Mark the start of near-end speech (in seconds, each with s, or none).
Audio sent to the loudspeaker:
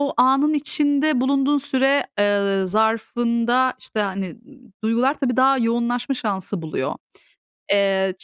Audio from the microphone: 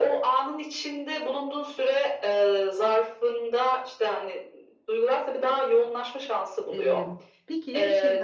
6.7 s